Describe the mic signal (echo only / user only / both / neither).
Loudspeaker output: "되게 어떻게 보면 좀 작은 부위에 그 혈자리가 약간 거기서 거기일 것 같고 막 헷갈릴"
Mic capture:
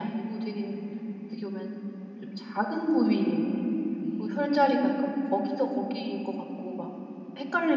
both